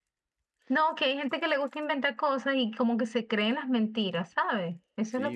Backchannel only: No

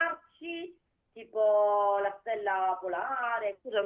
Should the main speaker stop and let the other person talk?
Yes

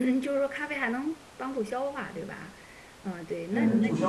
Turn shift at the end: Yes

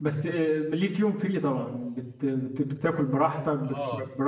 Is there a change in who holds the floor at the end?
Yes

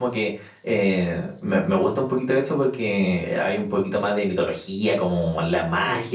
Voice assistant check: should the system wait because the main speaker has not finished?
Yes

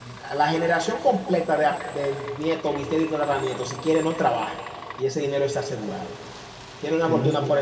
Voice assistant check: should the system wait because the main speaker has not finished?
Yes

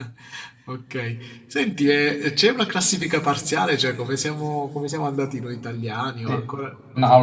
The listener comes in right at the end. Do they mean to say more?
Yes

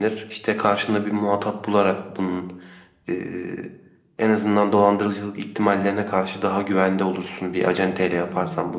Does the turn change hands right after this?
Yes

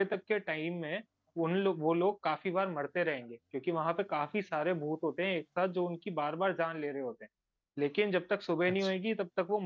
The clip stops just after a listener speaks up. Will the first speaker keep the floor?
Yes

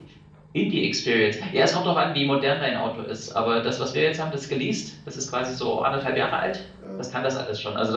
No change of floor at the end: Yes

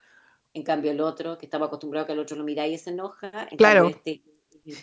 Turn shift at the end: No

